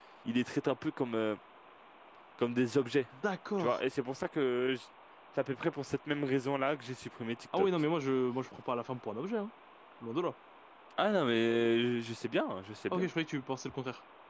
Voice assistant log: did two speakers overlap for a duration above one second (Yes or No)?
No